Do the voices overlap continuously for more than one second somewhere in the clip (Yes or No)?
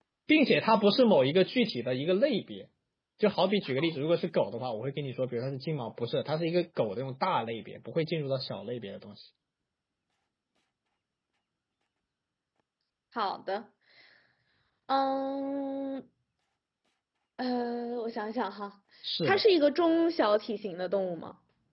No